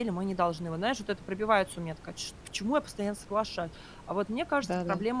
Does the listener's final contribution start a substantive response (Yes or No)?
No